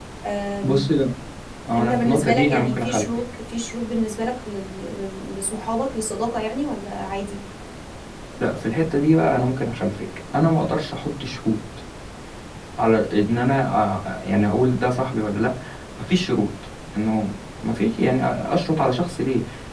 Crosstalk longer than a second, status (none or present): present